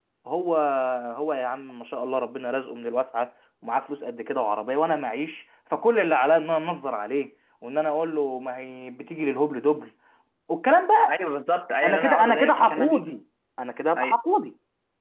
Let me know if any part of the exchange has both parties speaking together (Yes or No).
Yes